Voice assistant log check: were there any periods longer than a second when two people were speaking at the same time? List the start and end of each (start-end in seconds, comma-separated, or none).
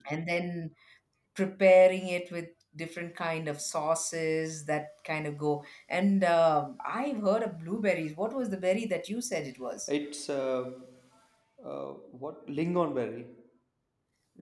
none